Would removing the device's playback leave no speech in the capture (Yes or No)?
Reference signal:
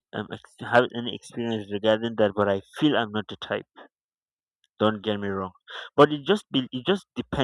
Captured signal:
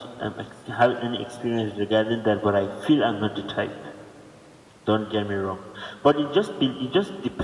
Yes